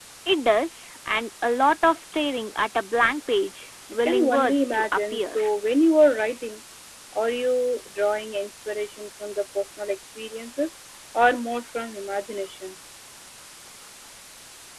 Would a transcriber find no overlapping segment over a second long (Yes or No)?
No